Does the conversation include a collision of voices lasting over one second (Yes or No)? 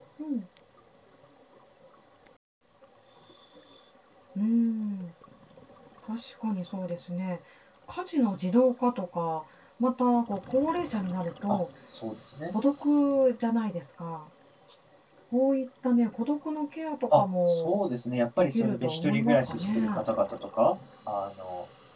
Yes